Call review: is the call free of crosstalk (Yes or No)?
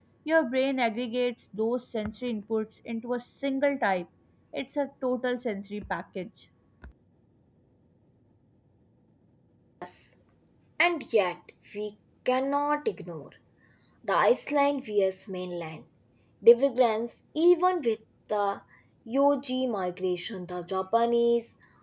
Yes